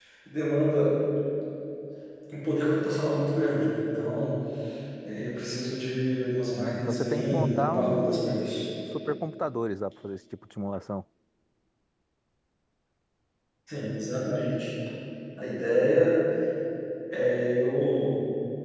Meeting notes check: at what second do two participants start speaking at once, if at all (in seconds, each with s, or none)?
6.5 s